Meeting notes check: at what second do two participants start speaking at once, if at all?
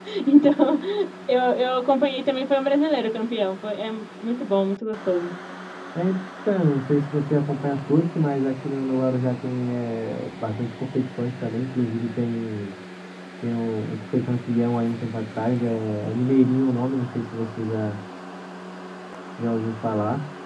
none

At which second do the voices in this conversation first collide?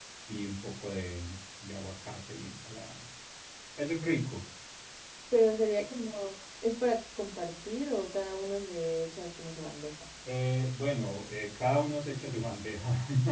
none

